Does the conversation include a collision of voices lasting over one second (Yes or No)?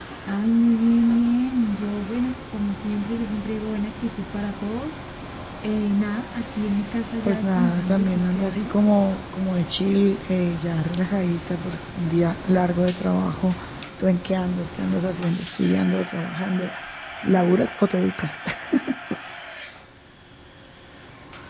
Yes